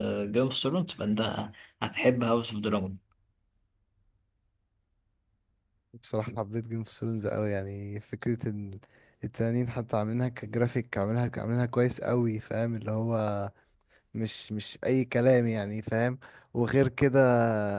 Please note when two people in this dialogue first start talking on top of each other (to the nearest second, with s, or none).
none